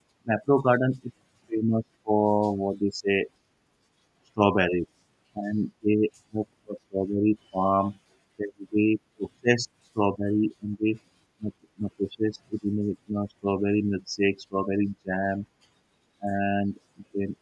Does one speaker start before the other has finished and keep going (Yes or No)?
No